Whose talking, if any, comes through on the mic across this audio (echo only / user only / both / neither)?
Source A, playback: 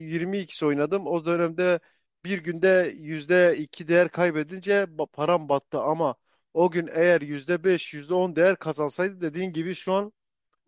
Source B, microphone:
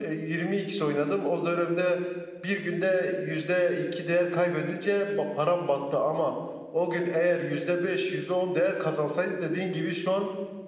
echo only